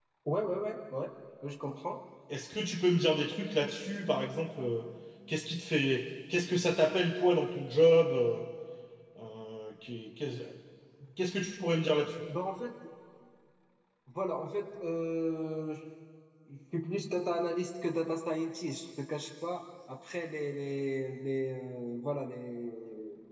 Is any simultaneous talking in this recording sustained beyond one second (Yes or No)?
No